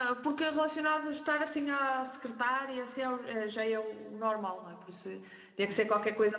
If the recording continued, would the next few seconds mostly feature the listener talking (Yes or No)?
No